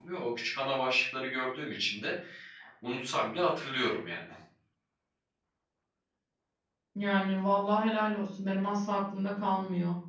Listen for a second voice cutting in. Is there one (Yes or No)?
No